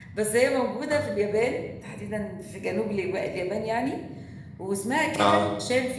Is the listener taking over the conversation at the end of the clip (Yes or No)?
No